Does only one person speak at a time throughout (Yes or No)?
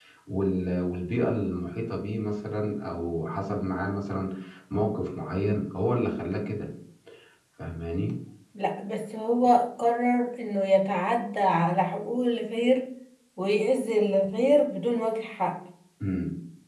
Yes